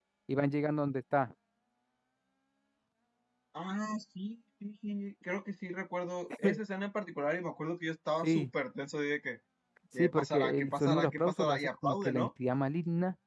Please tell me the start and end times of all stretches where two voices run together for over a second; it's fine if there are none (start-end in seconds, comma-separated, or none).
10.0-12.3